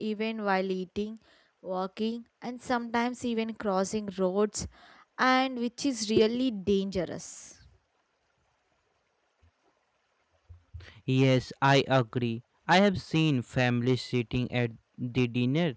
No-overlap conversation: Yes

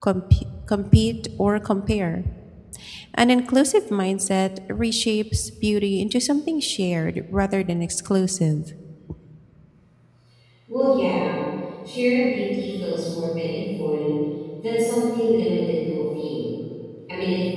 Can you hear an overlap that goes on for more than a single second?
No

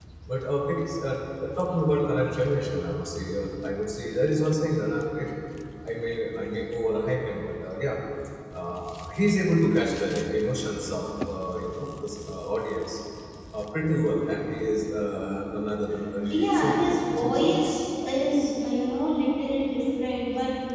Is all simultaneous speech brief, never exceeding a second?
No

